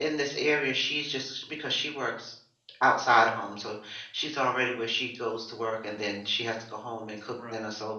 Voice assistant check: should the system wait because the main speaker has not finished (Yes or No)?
Yes